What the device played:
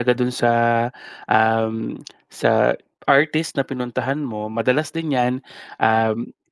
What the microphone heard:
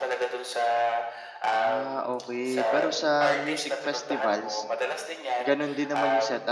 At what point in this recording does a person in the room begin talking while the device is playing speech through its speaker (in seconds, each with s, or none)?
1.5 s